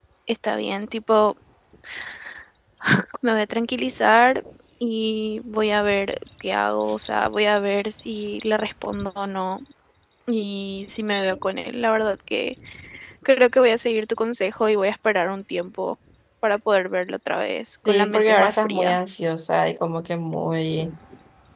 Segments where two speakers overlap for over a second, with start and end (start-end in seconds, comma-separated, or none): 17.7-19.0